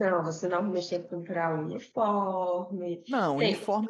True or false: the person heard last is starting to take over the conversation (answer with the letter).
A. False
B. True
B